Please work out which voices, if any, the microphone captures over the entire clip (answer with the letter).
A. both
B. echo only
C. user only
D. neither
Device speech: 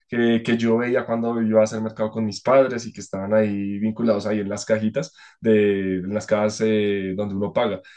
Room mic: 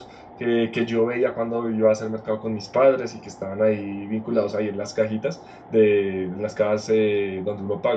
B